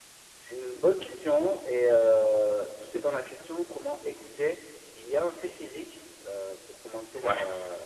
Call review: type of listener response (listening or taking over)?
listening